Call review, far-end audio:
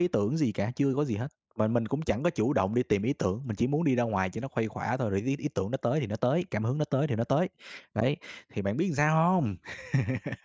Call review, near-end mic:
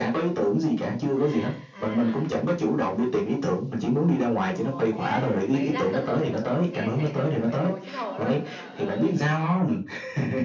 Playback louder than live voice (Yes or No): Yes